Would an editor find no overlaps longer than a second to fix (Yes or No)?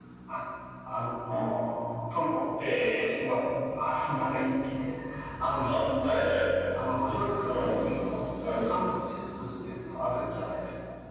No